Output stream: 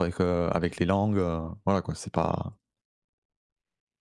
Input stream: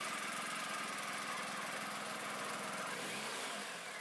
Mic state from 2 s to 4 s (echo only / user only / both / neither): neither